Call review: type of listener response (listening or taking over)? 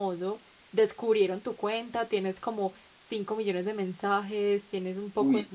listening